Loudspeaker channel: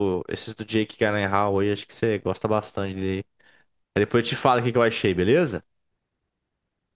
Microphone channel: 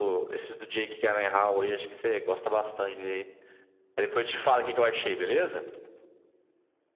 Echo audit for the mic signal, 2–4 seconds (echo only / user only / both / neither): echo only